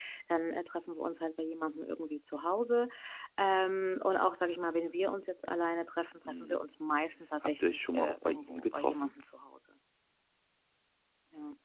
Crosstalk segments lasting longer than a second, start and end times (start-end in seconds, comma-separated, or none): 7.4-9.1